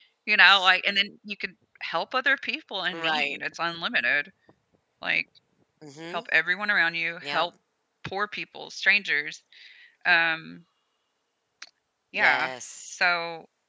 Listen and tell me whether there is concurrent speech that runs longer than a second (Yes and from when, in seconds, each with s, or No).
No